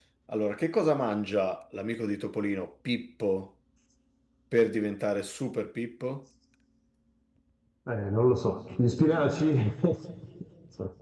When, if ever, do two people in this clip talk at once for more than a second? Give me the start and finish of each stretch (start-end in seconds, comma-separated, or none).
none